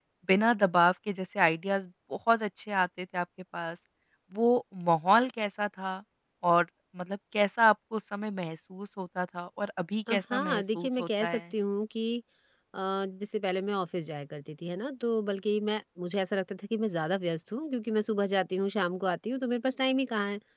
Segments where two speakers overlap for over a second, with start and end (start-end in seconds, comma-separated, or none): 10.1-11.4